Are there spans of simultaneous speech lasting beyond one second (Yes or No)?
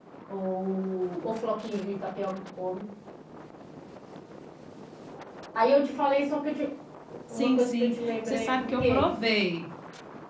Yes